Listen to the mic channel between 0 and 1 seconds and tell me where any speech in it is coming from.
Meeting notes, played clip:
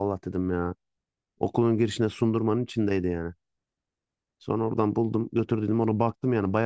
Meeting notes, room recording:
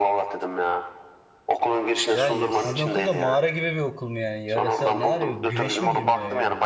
echo only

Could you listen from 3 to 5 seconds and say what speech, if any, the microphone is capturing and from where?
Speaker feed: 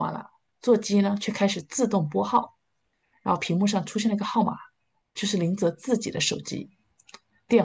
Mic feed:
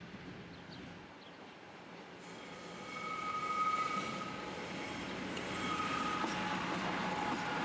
neither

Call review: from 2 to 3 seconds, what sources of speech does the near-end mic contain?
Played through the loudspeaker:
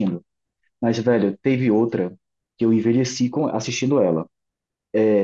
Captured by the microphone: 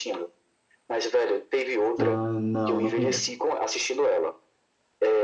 both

